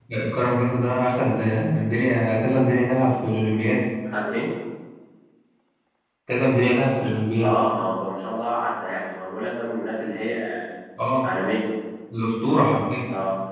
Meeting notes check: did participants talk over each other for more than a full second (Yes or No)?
No